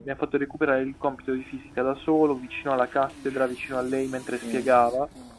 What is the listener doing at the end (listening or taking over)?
listening